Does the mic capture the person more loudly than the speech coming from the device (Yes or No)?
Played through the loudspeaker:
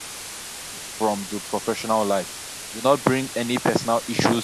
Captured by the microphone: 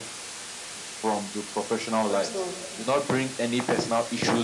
No